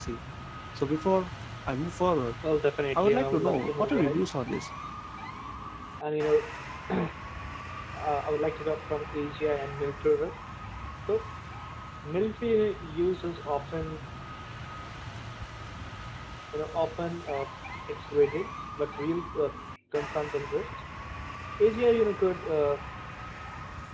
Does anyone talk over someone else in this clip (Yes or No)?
Yes